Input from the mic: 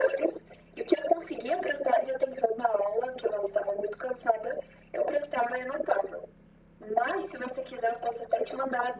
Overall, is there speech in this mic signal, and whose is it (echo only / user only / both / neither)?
echo only